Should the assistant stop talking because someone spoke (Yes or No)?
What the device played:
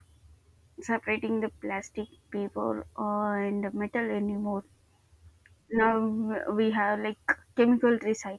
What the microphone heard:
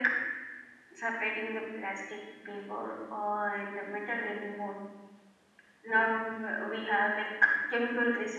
No